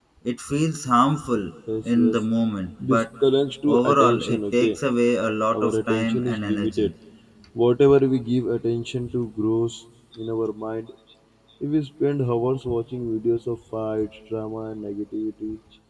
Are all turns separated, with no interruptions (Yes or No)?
No